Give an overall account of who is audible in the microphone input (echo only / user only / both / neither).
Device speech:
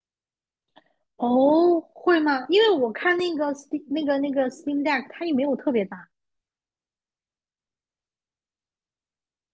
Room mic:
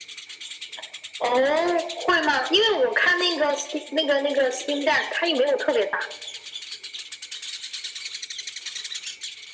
echo only